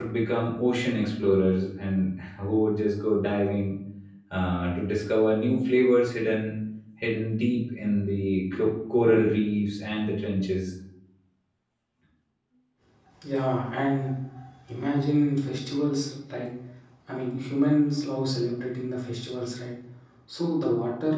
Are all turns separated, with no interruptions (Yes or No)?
Yes